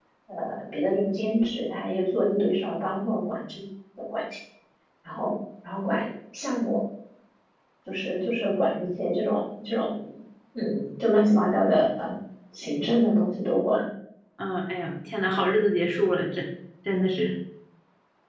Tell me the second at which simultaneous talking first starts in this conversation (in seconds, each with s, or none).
none